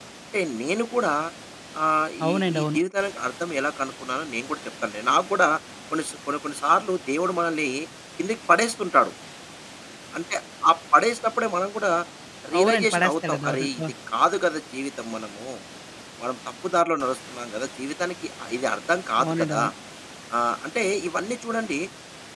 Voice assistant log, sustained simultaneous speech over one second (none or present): present